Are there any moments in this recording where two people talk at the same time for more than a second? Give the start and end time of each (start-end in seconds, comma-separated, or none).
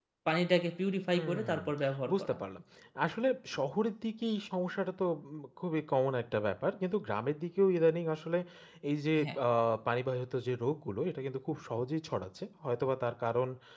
none